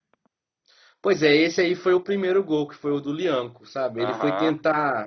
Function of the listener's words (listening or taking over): listening